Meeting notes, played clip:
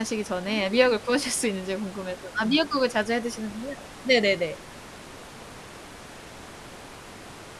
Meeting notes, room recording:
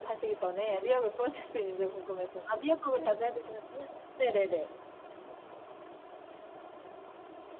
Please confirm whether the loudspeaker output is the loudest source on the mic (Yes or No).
Yes